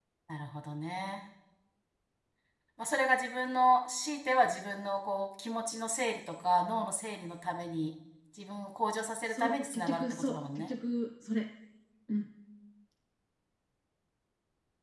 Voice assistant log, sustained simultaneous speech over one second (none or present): present